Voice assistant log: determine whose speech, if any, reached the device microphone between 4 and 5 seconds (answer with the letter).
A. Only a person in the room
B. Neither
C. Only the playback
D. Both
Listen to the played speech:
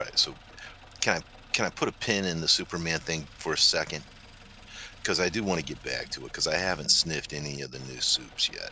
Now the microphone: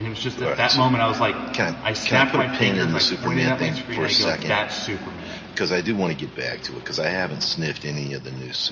D